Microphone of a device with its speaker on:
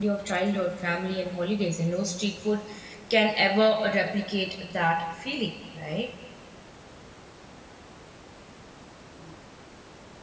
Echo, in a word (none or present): none